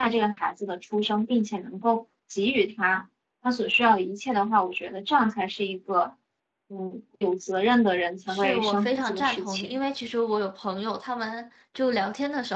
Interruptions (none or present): present